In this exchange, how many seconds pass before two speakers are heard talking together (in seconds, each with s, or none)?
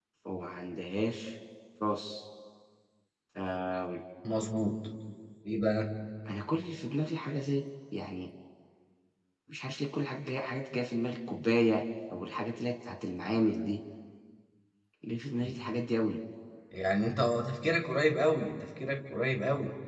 none